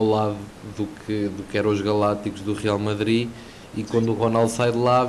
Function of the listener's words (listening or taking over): listening